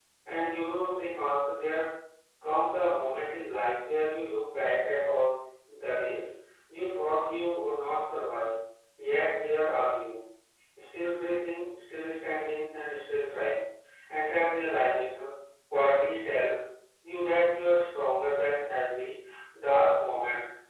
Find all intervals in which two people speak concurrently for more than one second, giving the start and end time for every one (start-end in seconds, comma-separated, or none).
none